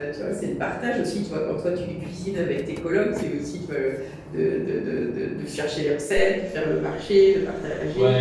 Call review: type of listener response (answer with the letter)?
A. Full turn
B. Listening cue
A